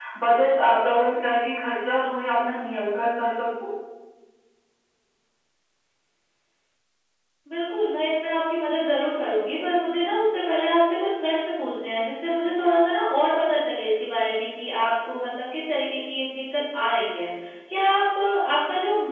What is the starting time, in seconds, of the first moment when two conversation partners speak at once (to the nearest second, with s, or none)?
none